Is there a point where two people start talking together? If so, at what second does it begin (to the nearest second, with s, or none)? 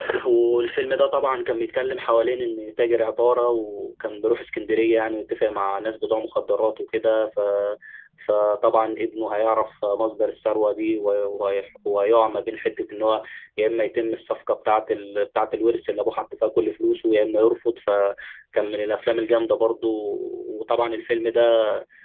none